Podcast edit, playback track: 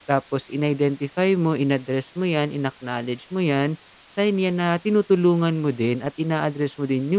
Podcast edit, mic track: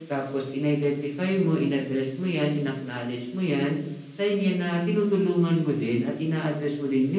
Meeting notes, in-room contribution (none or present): none